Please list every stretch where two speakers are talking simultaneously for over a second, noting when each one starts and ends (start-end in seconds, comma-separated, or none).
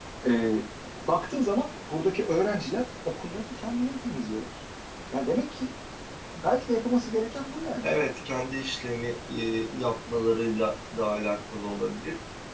none